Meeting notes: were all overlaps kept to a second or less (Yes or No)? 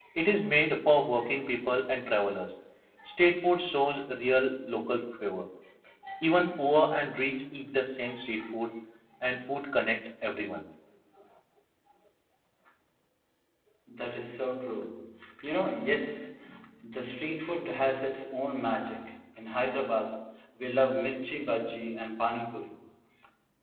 Yes